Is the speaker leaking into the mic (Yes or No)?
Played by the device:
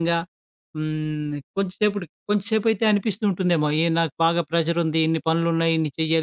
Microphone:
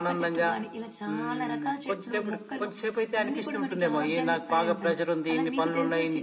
Yes